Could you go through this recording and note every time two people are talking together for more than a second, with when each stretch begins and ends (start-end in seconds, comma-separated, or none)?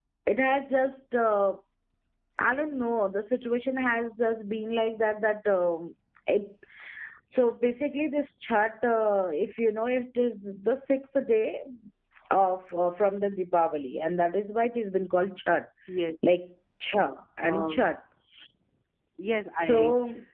none